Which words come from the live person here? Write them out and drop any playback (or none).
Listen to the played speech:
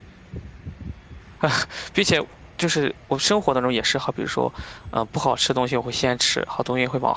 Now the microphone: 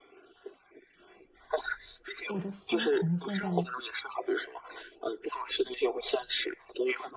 我都心疼现在的，